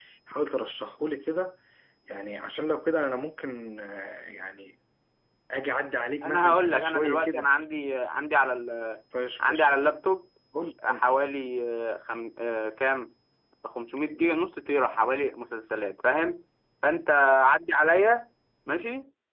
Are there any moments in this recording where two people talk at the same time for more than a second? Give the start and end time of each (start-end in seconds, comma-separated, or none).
6.2-7.5